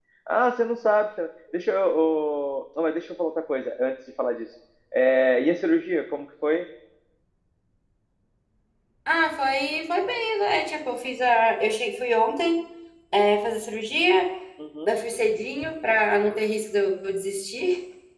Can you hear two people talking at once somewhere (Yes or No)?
No